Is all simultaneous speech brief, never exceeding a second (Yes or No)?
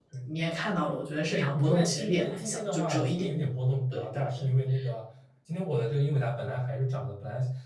No